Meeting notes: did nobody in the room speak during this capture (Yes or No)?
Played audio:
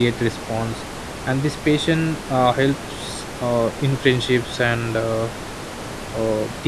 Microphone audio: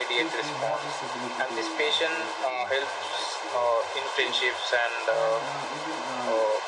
No